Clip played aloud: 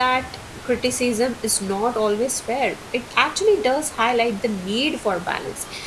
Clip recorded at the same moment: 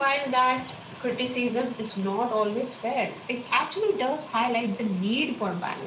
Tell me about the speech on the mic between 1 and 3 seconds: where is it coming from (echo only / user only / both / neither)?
echo only